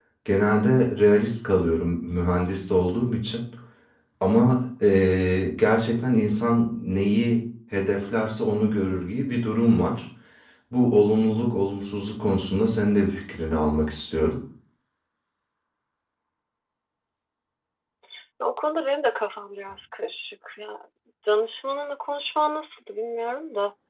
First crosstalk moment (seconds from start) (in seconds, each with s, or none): none